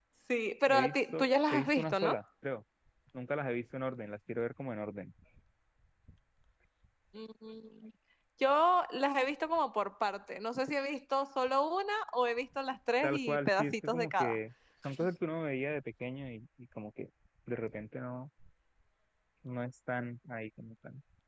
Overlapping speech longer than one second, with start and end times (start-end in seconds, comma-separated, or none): 0.7-2.2, 13.0-14.4